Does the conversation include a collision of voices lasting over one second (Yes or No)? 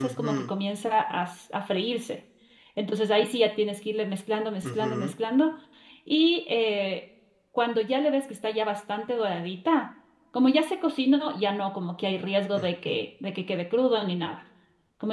No